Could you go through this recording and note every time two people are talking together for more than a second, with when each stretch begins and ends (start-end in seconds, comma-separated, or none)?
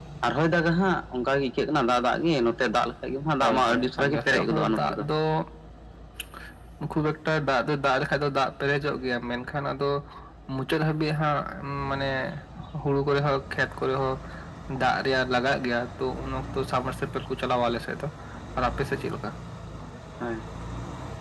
3.4-5.0